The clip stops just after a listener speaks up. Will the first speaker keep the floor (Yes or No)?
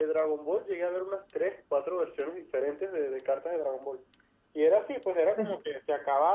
Yes